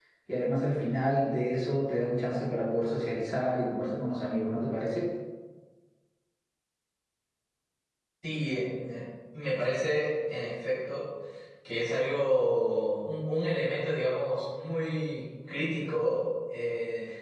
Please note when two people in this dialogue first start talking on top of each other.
none

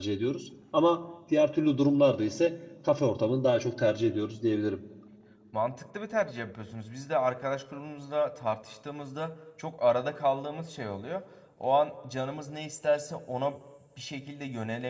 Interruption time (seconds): none

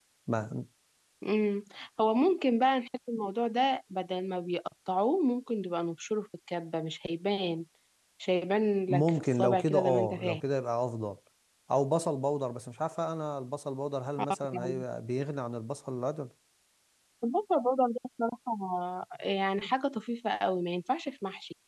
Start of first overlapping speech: 8.9 s

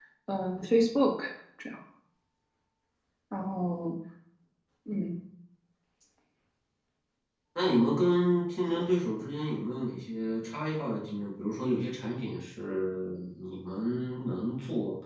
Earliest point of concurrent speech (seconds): none

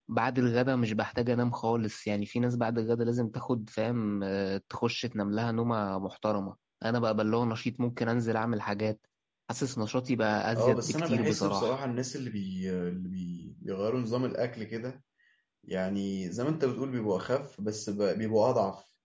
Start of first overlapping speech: 10.5 s

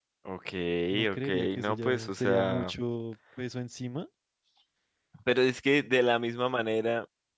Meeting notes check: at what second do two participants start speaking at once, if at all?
1.1 s

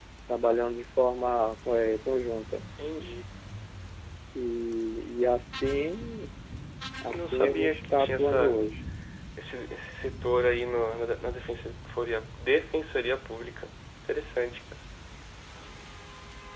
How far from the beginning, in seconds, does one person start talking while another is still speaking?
7.1 s

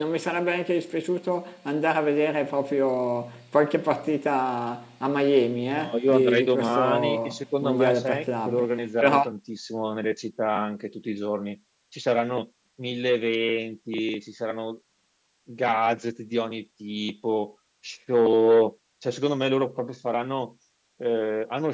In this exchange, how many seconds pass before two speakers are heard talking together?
5.7 s

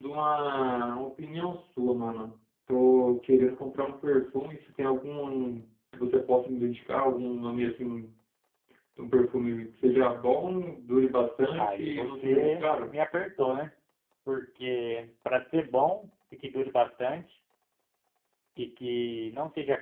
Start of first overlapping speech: 11.5 s

